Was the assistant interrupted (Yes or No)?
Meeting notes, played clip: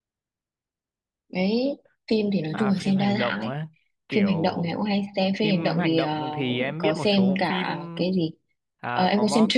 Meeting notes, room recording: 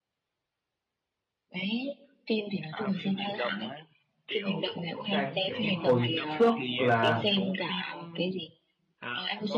Yes